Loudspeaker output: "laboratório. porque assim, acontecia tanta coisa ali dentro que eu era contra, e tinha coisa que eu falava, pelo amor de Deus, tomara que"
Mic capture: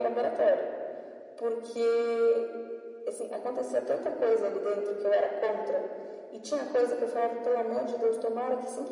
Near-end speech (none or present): none